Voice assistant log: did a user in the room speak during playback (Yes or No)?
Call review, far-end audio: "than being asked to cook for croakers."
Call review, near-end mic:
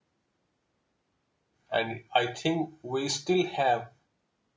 Yes